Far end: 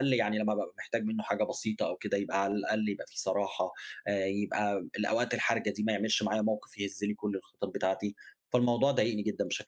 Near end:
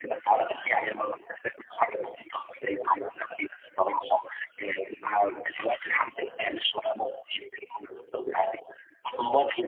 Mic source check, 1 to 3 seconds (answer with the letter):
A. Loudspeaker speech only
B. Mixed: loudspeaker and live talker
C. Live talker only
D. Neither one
A